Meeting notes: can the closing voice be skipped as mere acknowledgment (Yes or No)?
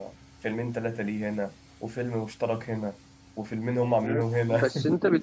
No